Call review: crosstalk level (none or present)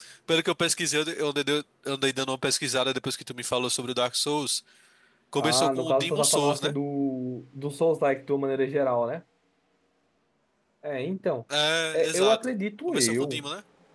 present